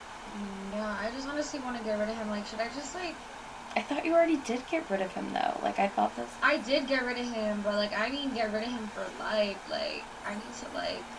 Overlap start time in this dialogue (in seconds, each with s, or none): none